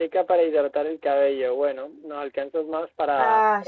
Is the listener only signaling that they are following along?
Yes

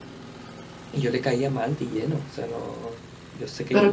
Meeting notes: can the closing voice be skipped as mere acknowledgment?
No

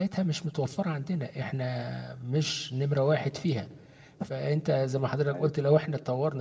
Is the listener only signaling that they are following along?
Yes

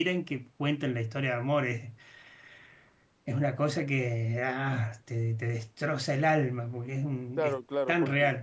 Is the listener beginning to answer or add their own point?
Yes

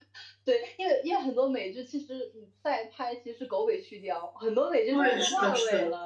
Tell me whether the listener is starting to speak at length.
Yes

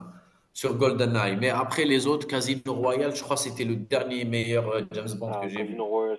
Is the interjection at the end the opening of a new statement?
Yes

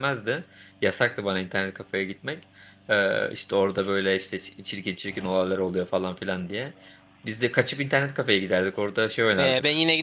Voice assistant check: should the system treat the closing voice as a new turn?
Yes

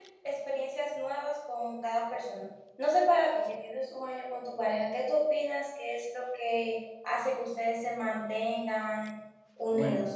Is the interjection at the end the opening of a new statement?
Yes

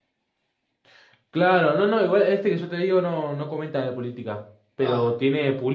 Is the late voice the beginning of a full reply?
No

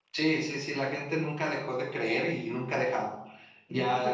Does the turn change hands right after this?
Yes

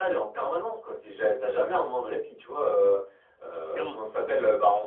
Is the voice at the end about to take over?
No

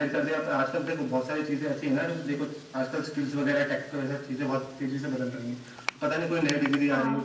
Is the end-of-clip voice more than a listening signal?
No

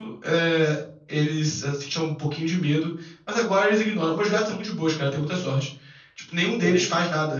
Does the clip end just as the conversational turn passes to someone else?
No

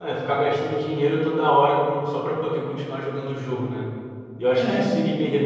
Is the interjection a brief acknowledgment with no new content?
Yes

